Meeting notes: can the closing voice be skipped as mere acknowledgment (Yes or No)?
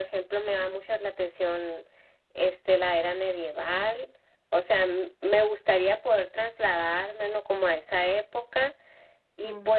Yes